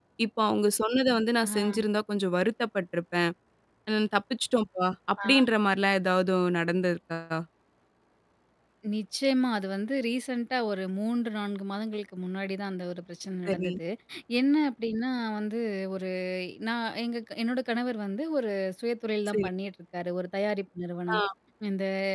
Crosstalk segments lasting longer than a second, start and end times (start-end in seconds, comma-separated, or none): none